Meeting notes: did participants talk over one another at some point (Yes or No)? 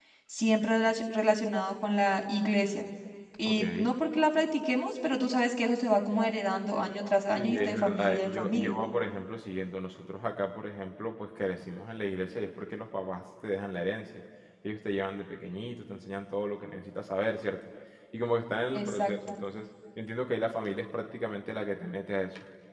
Yes